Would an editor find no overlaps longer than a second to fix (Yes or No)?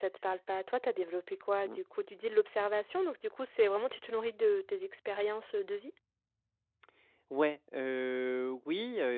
Yes